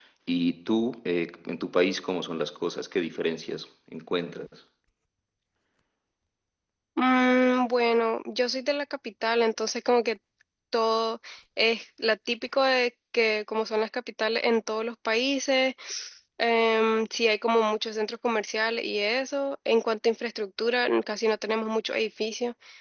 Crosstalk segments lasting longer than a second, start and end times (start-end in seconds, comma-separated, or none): none